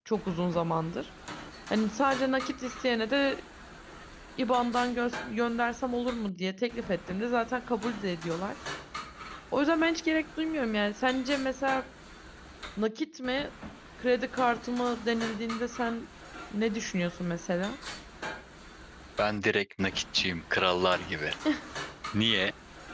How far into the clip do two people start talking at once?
none

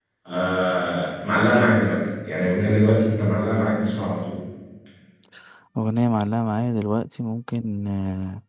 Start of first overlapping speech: none

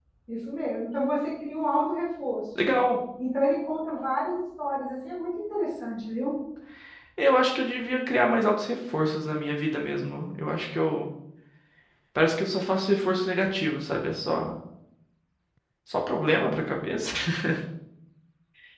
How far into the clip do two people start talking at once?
none

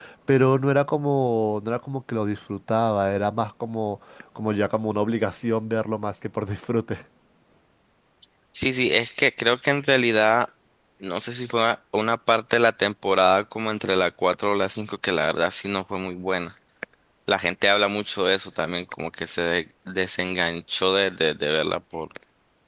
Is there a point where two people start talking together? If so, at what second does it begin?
none

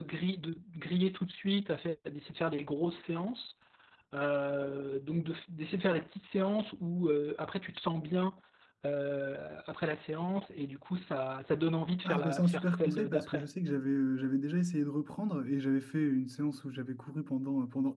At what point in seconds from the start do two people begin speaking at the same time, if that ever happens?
12 s

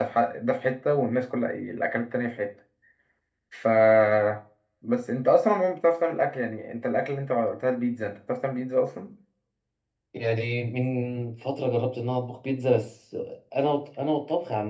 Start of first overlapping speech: none

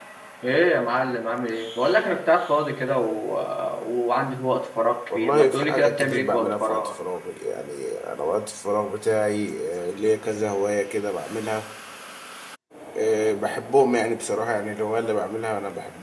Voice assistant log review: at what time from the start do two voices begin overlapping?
5 s

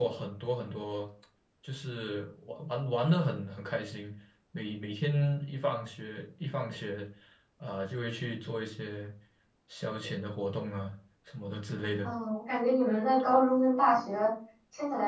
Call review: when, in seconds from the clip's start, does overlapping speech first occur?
none

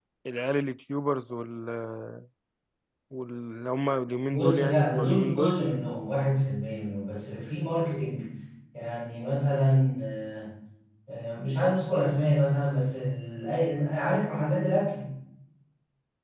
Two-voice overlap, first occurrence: 4 s

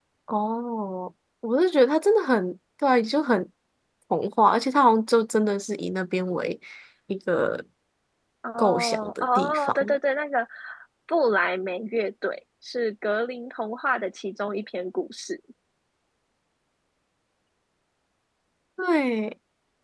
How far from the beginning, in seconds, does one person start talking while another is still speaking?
9 s

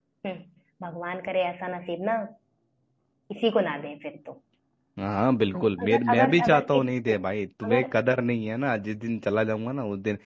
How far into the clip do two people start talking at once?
6 s

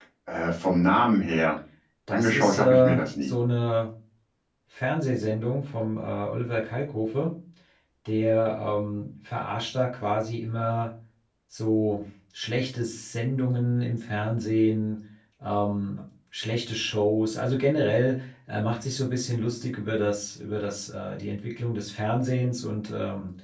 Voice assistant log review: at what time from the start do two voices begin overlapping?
2 s

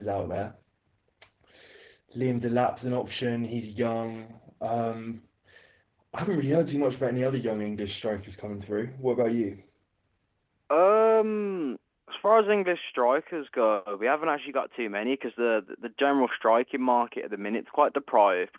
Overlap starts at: none

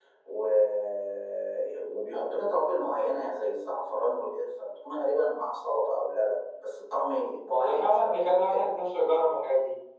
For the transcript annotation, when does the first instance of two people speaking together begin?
8 s

